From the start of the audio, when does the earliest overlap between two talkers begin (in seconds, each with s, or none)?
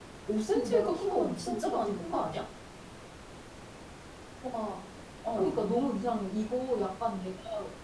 0.5 s